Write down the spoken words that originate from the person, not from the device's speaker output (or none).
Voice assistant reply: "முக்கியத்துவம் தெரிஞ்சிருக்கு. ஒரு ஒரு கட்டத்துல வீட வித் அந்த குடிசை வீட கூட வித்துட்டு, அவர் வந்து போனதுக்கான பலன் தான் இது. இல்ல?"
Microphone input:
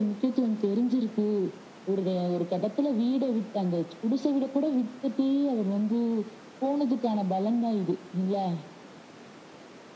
none